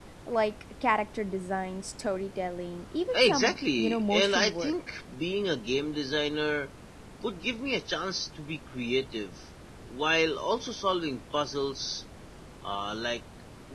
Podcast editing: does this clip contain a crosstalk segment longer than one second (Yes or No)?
Yes